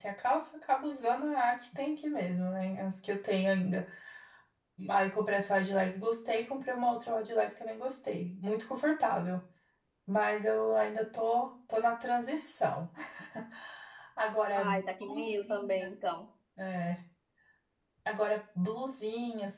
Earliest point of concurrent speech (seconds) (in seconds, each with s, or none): 14.5 s